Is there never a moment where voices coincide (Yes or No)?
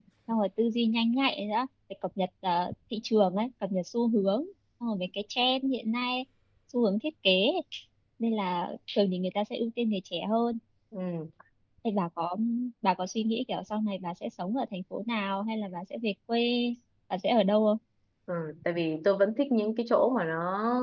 Yes